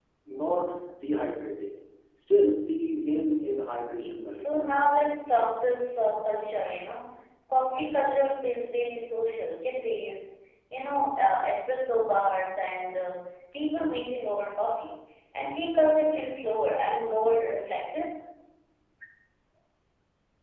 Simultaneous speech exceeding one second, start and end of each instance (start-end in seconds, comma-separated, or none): none